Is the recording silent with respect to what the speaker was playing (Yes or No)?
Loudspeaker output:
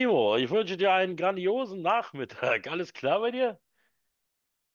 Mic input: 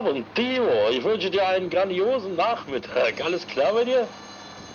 No